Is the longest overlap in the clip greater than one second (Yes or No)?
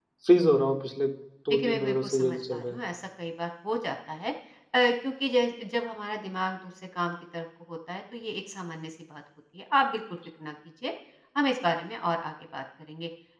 Yes